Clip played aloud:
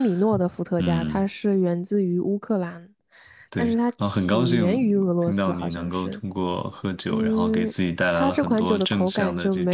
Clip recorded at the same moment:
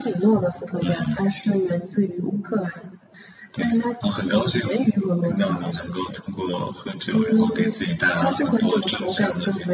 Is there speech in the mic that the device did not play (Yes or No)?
No